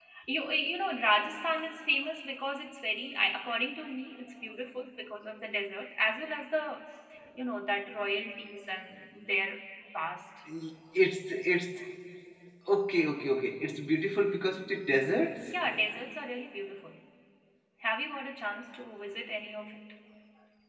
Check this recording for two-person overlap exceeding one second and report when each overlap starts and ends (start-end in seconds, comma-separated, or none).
none